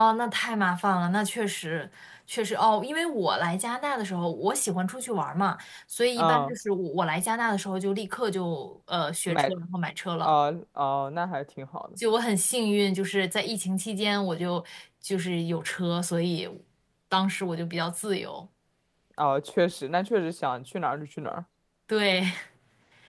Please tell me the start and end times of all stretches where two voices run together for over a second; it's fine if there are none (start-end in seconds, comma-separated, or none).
none